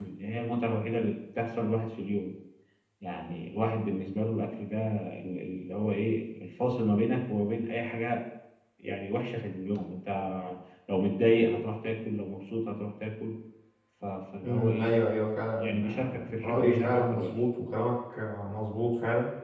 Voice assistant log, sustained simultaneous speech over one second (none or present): present